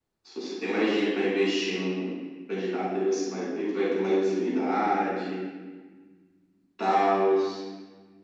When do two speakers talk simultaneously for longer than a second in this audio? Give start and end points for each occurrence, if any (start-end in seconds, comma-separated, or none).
none